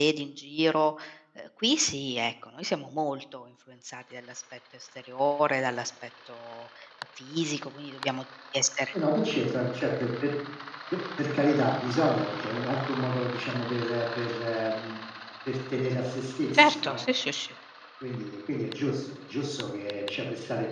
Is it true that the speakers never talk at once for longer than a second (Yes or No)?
Yes